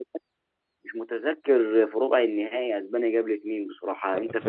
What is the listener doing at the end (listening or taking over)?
taking over